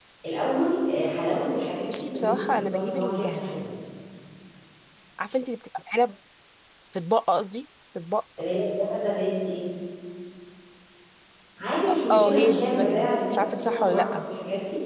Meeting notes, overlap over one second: present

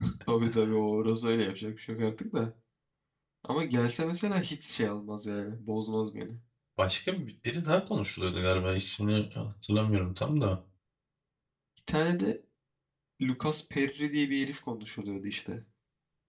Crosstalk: none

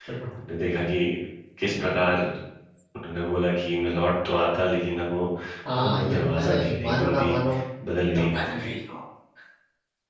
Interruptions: present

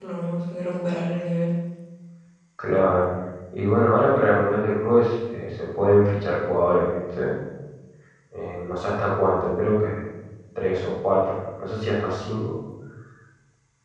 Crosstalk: none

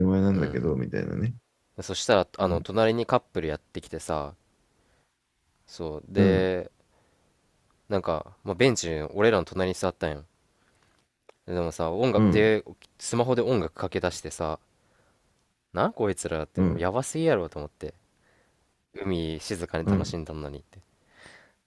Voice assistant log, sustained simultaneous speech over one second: none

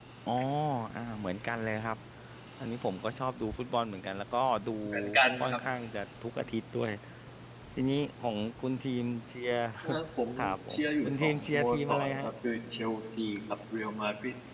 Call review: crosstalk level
present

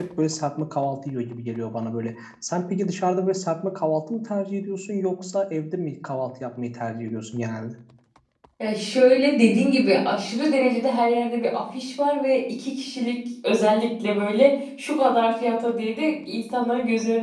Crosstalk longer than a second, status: none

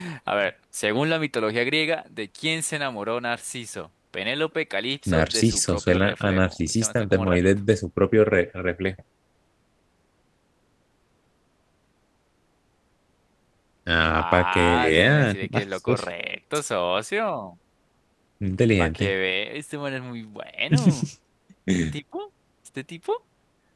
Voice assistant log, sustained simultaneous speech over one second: present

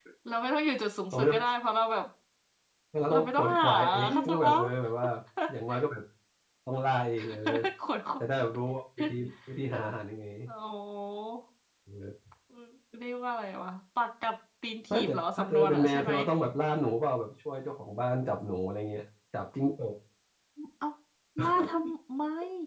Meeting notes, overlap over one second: present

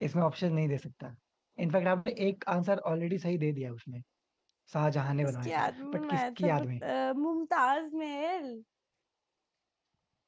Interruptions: present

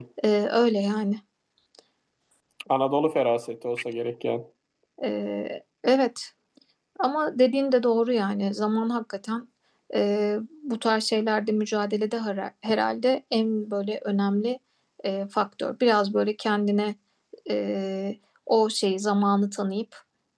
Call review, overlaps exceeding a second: none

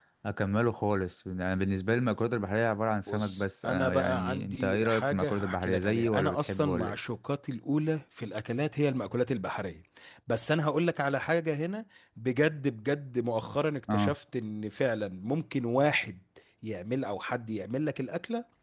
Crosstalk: present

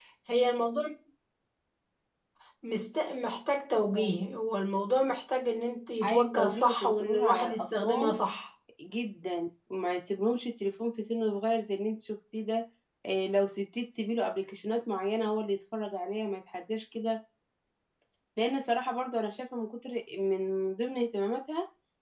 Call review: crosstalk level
present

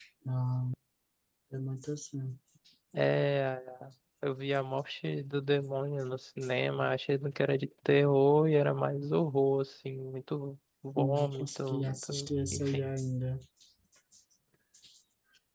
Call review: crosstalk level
present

